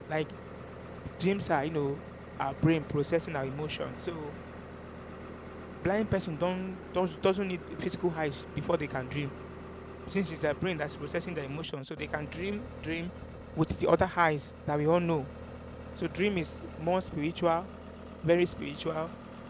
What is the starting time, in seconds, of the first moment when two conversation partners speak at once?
none

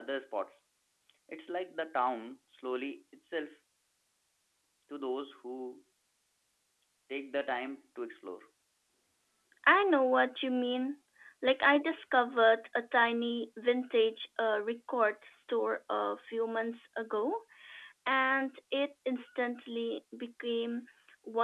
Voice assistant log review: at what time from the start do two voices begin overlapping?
none

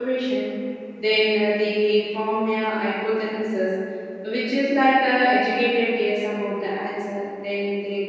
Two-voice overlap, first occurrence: none

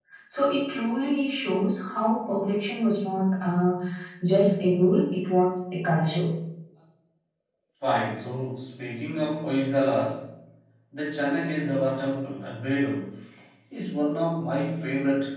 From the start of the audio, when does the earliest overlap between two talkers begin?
none

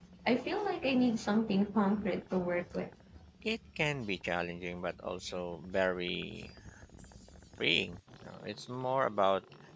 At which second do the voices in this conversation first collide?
none

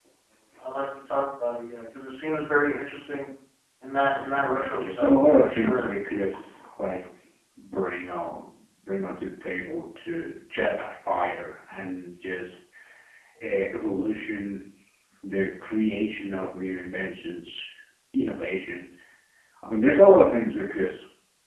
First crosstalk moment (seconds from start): 4.5 s

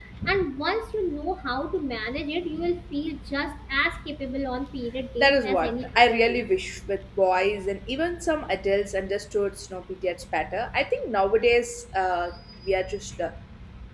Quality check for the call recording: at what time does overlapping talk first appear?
5.2 s

